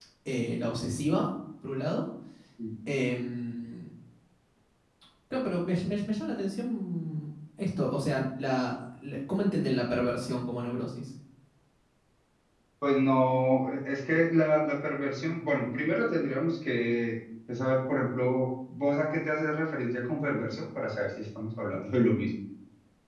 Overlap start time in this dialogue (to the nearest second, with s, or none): none